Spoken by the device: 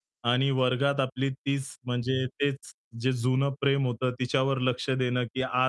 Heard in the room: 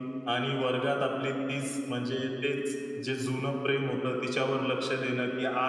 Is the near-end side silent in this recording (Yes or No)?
Yes